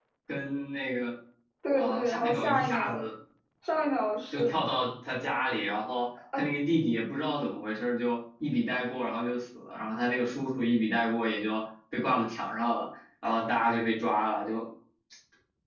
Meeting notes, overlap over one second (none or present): present